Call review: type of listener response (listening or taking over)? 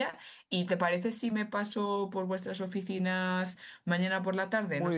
taking over